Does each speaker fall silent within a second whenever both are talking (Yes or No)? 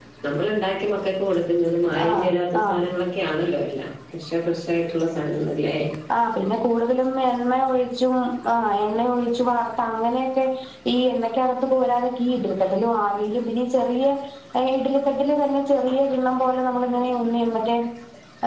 Yes